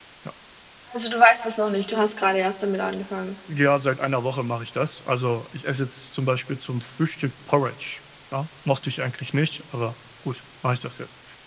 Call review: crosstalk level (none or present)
none